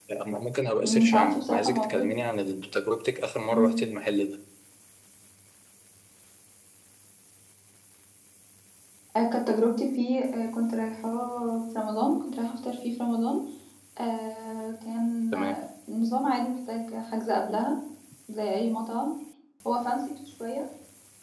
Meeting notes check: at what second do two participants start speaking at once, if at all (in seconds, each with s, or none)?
0.8 s